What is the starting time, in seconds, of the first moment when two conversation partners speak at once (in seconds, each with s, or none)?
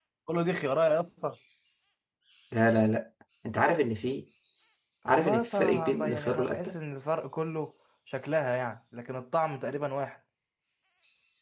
5.1 s